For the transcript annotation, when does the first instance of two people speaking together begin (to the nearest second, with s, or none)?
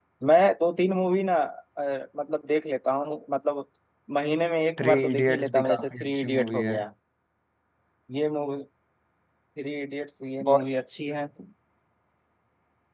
5 s